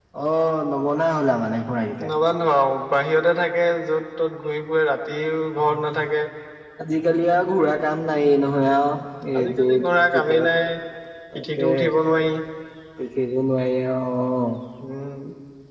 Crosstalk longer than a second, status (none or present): none